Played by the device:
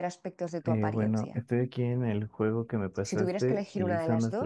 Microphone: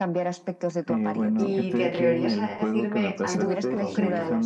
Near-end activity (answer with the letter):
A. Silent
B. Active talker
B